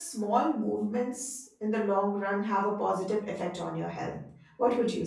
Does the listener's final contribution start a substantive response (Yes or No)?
Yes